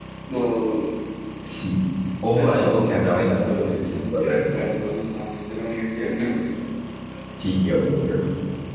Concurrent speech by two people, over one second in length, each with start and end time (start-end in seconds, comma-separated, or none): 2.3-4.4